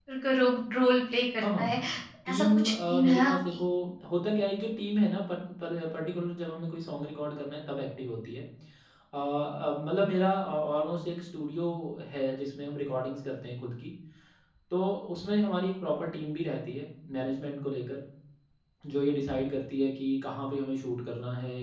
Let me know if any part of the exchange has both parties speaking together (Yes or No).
Yes